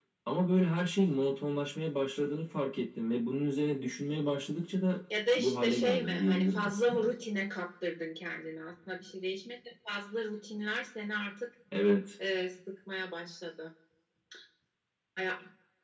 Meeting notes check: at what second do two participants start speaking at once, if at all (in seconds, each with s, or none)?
5.4 s